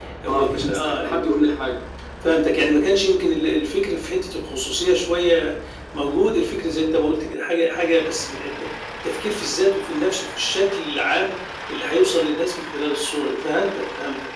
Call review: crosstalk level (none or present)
present